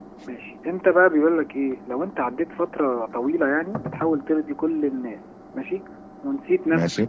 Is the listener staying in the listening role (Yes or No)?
Yes